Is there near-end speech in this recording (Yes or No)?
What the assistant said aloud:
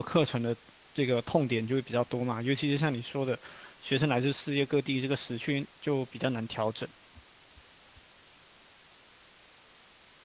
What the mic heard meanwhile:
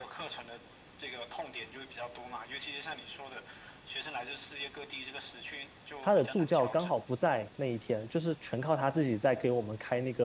Yes